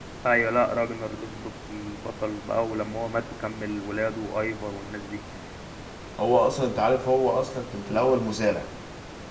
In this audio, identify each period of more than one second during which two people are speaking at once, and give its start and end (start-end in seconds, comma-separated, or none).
none